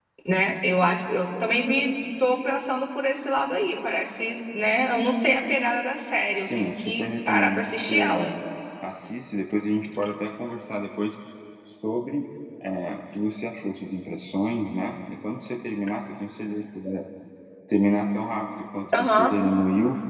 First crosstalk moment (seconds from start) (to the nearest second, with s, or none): 6 s